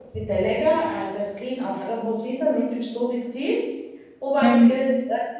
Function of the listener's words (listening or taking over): listening